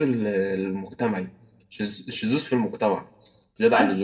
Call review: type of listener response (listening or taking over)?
taking over